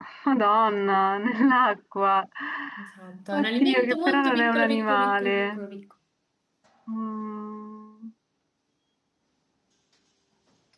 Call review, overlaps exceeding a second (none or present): present